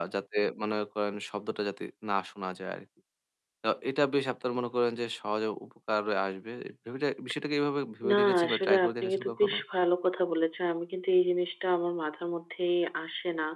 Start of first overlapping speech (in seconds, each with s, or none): 8.0 s